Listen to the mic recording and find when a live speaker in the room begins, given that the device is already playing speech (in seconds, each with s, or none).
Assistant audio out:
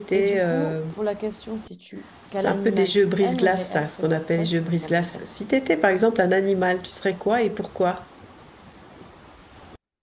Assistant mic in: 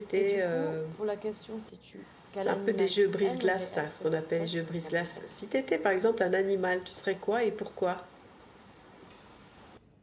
none